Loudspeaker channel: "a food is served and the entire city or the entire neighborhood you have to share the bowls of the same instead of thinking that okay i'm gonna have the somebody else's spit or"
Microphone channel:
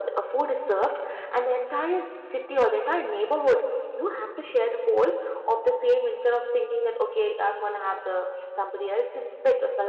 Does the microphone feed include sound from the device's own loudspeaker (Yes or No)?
Yes